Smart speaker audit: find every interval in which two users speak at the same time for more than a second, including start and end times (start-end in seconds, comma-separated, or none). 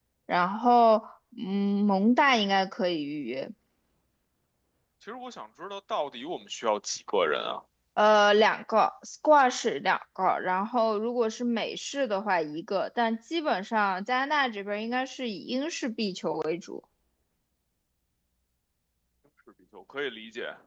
none